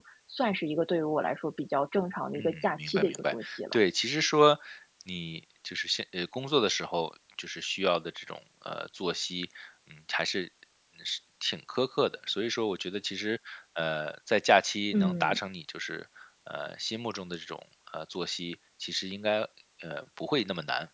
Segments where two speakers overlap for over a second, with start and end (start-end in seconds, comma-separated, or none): 2.4-3.8